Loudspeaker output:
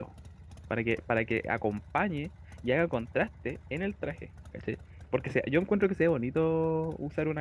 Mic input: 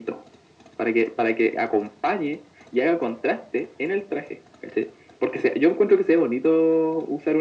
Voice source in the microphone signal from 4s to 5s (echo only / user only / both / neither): echo only